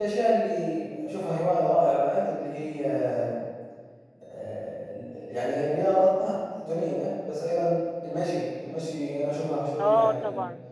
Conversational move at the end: taking over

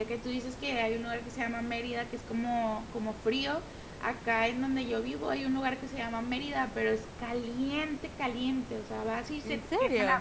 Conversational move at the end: listening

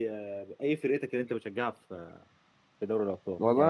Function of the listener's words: taking over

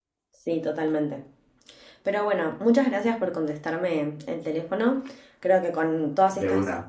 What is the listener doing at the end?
listening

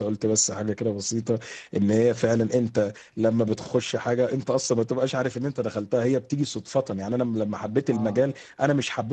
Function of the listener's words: listening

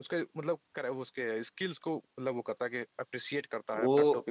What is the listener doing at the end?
taking over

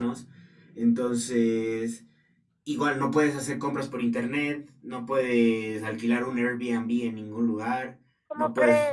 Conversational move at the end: listening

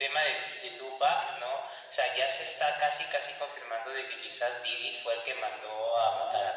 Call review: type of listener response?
taking over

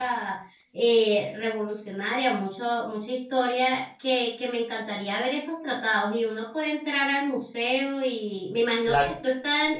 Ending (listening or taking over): listening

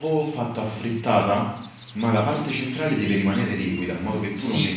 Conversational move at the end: taking over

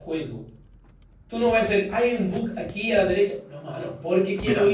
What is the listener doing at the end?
listening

